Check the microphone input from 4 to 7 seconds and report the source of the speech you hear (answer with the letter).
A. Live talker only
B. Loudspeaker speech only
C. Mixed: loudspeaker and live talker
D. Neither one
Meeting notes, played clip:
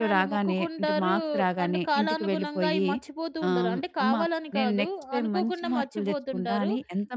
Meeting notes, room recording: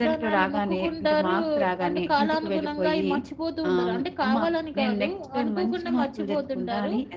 B